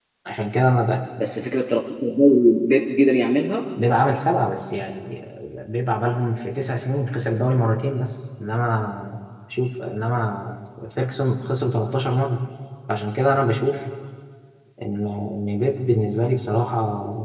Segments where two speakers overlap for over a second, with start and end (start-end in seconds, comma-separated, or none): none